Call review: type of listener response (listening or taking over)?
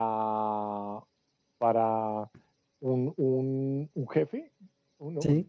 listening